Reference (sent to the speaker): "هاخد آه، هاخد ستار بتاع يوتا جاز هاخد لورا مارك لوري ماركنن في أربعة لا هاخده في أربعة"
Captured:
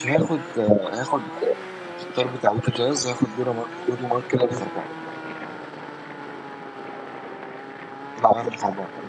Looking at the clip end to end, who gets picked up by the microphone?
echo only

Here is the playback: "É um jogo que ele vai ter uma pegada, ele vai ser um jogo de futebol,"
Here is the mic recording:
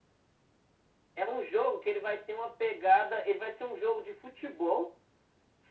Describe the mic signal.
echo only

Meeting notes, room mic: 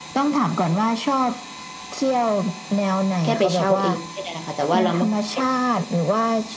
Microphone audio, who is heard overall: both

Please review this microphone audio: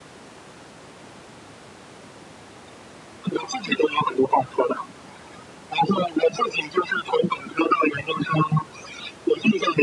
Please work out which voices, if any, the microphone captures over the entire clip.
echo only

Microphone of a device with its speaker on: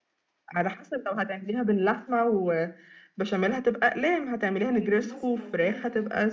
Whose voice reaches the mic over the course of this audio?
both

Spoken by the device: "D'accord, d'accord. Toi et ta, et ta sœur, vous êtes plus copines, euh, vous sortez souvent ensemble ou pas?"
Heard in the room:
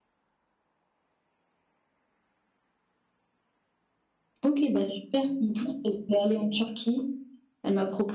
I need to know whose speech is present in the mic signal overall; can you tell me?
user only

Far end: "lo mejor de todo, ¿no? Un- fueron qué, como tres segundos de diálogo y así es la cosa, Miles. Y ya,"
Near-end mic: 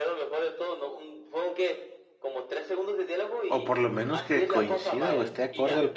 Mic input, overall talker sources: both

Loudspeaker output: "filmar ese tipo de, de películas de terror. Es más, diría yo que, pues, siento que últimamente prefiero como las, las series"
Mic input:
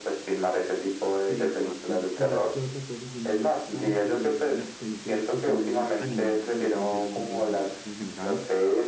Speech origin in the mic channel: both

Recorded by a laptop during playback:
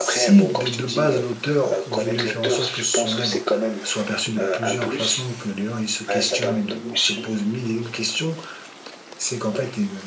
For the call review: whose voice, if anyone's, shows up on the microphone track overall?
both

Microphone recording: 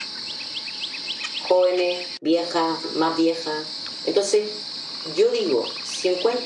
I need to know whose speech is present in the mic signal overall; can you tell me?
user only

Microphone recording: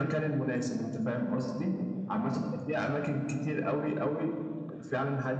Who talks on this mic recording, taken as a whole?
echo only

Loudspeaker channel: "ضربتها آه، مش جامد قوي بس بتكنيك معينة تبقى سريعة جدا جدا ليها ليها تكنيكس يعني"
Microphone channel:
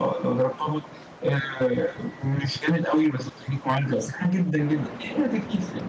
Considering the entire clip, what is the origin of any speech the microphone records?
echo only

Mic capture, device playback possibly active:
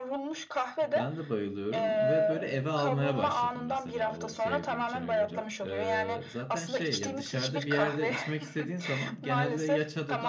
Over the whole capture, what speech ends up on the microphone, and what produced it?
both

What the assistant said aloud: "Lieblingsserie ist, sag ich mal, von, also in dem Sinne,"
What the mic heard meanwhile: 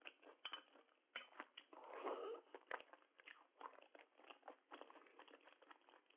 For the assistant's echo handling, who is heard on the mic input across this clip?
neither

